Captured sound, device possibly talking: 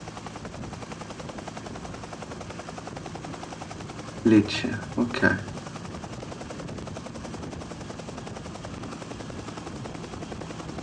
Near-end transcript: Lecce, ok.

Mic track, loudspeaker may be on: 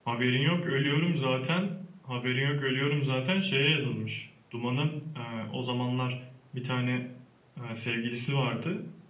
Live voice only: none

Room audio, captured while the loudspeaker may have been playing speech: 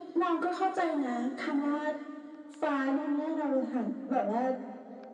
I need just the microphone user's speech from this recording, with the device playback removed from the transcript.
none

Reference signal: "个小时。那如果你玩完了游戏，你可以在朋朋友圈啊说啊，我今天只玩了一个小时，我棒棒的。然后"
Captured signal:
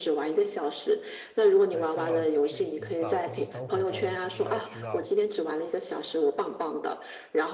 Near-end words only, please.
还是要去寻找，就是生活中就是要需要

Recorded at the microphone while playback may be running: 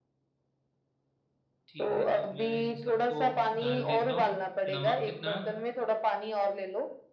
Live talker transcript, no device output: ठीक है तो मैं इन सबको डाल देता हूँ नमक कितना

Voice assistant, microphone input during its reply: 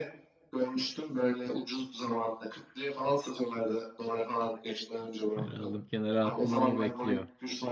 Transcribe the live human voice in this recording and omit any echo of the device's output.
Ben aldım kenara attım ama bekliyor.

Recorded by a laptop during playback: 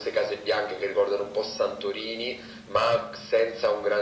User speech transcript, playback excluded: none

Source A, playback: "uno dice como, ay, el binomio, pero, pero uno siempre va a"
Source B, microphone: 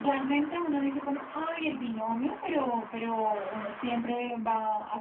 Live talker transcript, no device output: none

